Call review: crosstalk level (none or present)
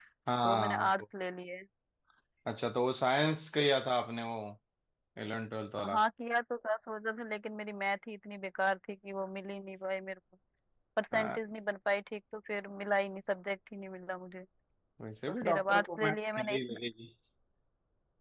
present